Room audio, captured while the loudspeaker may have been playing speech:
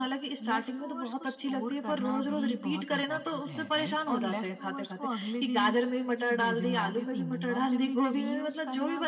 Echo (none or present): present